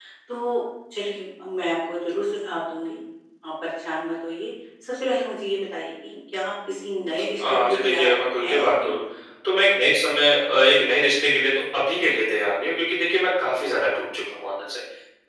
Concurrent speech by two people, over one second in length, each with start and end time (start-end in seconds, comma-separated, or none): 7.6-8.9